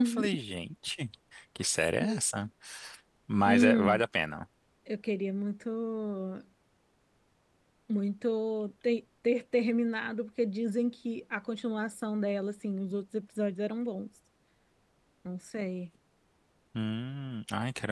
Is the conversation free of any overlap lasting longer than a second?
Yes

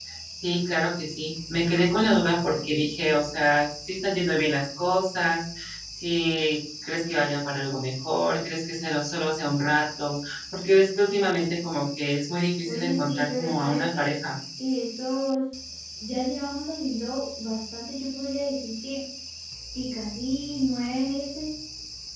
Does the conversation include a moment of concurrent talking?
Yes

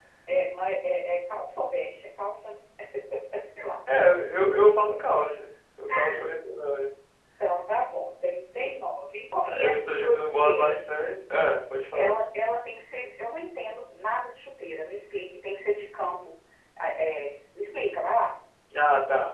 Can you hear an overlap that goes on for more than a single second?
Yes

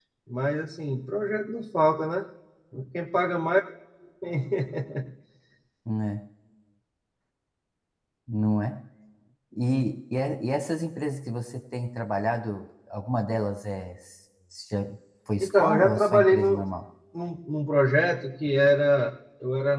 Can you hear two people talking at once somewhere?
Yes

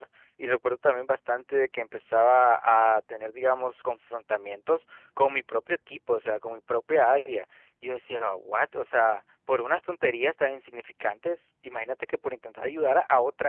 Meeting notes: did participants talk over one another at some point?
No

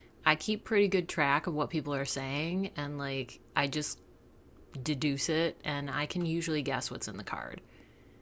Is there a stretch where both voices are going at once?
No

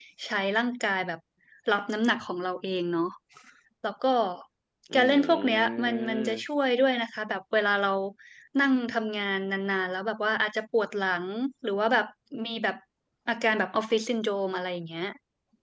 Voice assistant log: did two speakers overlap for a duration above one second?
Yes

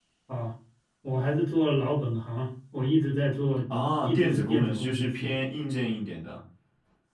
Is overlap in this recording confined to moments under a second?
No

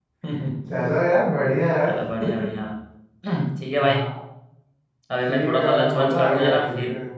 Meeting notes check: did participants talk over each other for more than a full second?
Yes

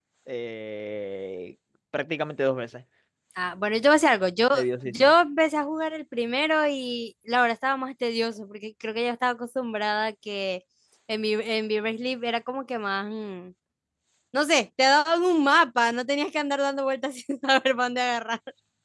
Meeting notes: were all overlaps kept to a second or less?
Yes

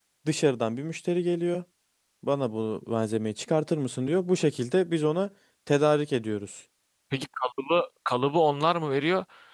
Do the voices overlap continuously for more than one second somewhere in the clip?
No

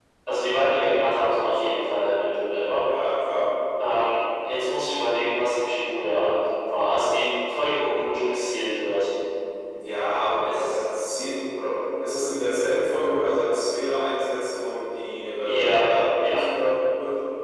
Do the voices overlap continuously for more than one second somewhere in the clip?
No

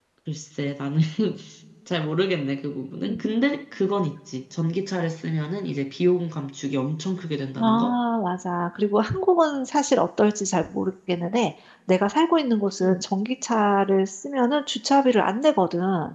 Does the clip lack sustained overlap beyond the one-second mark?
Yes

